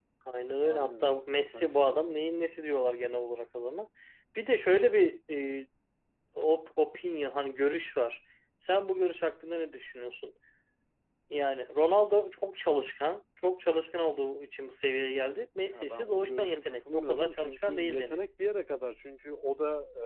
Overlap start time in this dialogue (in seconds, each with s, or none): 0.6 s